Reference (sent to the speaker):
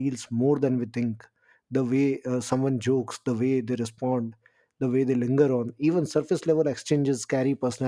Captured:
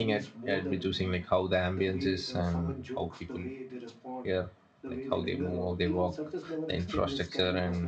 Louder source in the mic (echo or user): user